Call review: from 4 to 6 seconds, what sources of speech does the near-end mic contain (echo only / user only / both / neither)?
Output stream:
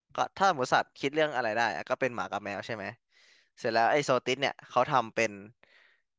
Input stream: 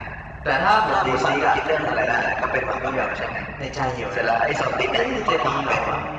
both